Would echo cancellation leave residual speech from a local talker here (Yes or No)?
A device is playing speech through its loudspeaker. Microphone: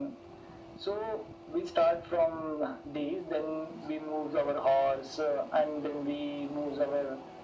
No